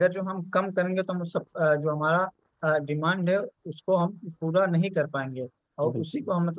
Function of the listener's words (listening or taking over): listening